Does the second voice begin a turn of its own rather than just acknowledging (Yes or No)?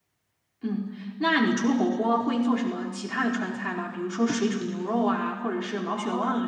Yes